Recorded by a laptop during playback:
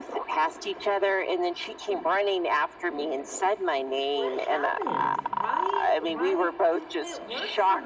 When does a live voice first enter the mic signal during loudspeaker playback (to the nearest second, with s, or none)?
4 s